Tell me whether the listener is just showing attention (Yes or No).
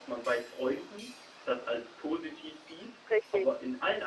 Yes